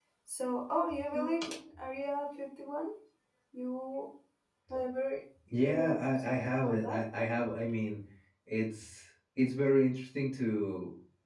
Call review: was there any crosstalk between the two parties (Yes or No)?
Yes